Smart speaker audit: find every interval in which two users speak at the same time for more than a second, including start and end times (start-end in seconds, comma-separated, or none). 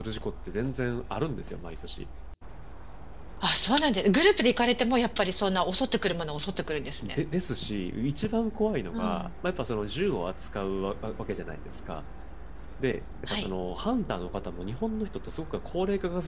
none